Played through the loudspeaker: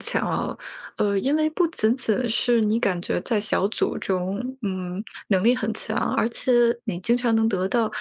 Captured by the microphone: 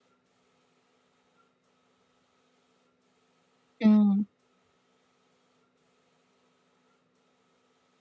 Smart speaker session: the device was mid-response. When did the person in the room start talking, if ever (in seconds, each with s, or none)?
3.8 s